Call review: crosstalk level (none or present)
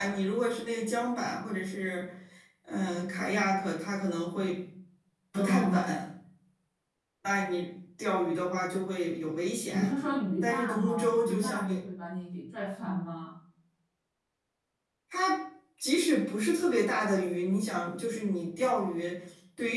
present